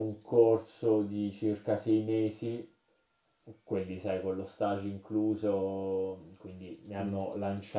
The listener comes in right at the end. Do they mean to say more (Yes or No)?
No